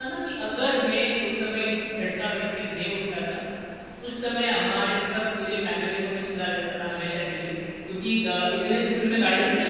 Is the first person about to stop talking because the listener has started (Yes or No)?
Yes